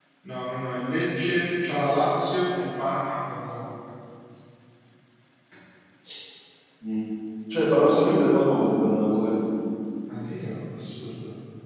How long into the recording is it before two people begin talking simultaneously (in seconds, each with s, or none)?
none